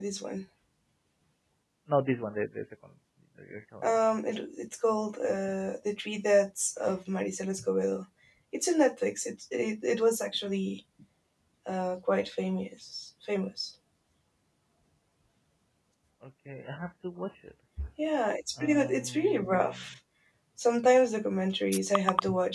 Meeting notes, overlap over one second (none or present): present